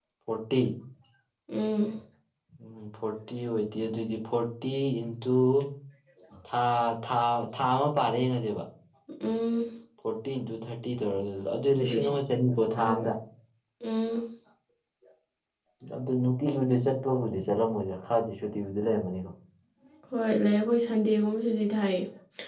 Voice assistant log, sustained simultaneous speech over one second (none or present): none